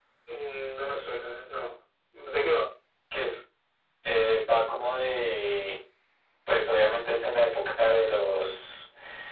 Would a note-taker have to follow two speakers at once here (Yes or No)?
No